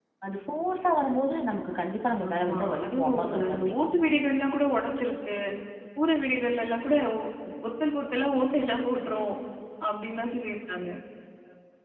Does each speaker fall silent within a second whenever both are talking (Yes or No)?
No